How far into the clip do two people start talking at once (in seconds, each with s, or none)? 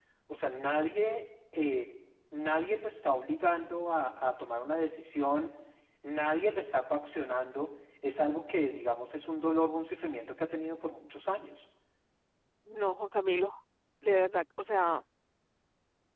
none